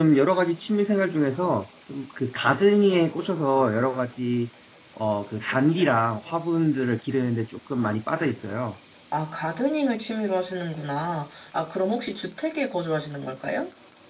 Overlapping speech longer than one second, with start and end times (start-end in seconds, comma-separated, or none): none